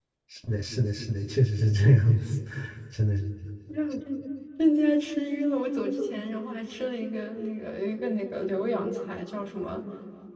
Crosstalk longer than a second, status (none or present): none